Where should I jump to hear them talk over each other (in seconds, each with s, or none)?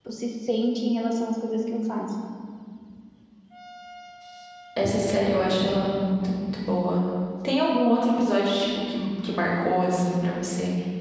none